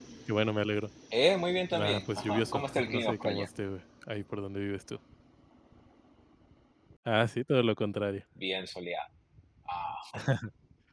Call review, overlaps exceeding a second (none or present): present